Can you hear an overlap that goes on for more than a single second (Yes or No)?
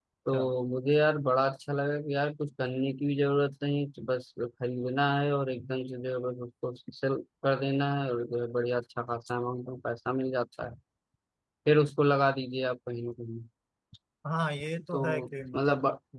No